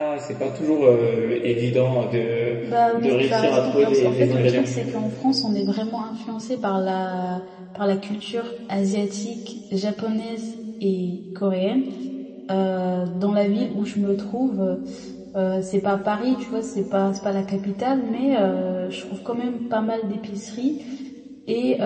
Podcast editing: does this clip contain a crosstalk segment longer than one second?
Yes, from 3.0 s

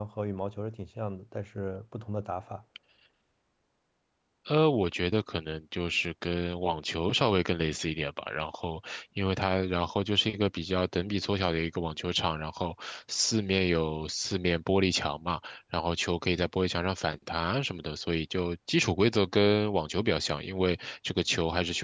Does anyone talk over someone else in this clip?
No

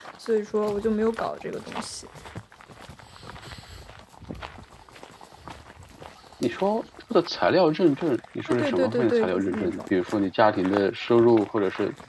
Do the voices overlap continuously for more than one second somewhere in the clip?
Yes, from 8.5 s

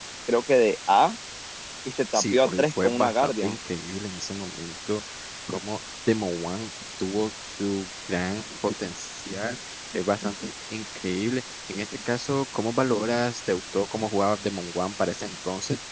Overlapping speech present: Yes, from 2.1 s

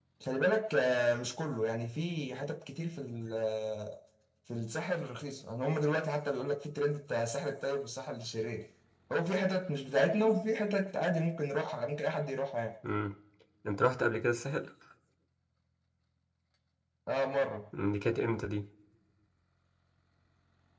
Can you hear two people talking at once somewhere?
No

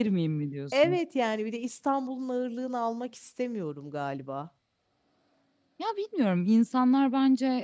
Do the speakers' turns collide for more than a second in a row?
No

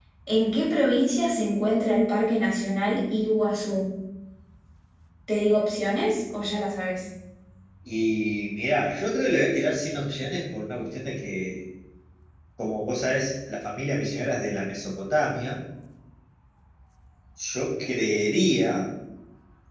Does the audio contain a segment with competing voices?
No

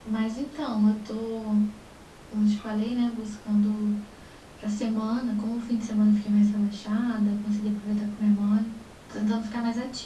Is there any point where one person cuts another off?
No

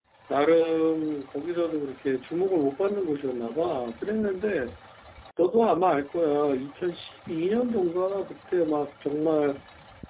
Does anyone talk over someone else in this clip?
No

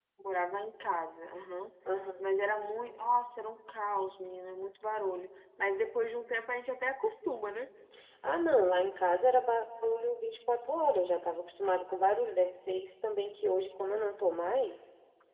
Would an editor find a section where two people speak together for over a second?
No

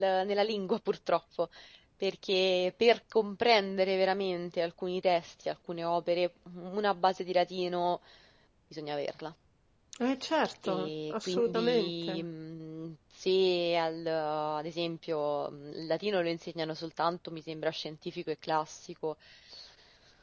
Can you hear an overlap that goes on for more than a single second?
Yes, from 10.6 s

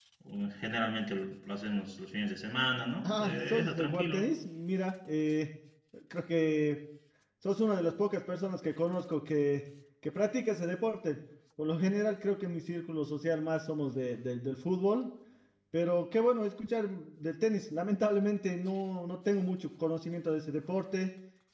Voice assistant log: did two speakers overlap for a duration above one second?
Yes, from 3.0 s

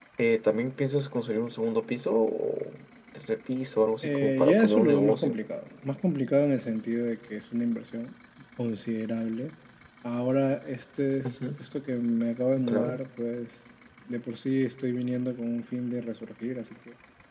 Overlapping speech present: Yes, from 4.0 s

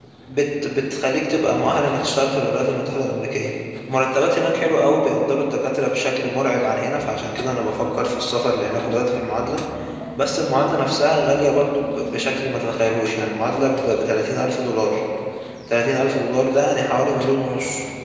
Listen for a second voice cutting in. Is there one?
No

